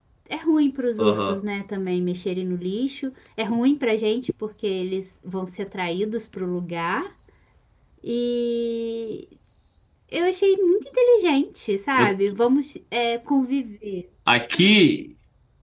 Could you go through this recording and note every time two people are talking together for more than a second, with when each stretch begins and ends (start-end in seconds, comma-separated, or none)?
none